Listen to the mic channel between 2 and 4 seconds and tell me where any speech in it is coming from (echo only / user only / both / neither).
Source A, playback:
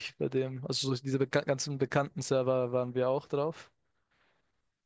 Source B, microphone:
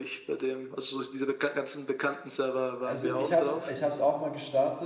both